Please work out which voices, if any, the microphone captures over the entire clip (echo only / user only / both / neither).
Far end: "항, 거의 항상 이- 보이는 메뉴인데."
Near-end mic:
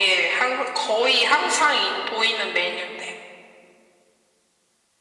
echo only